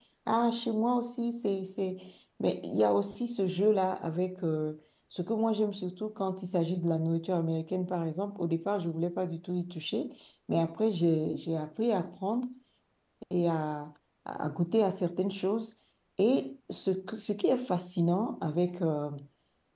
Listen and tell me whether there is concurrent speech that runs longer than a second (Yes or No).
No